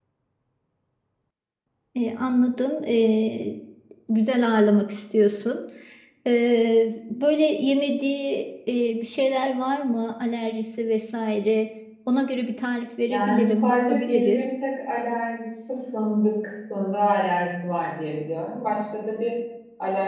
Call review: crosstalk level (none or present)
present